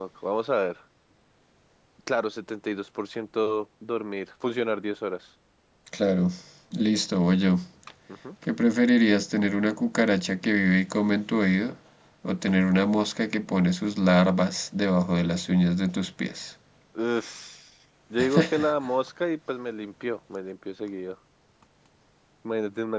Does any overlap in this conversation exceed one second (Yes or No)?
No